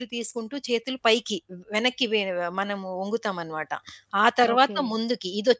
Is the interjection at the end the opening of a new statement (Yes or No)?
No